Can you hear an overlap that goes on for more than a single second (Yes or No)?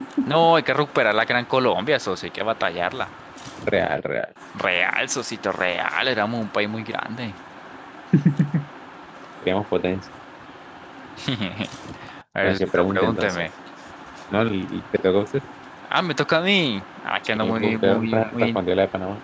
Yes